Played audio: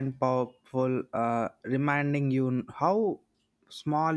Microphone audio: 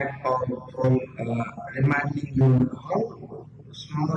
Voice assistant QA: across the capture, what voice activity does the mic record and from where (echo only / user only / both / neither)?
echo only